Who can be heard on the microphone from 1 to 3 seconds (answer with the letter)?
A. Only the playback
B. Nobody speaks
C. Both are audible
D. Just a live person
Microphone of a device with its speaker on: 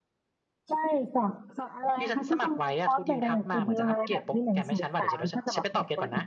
C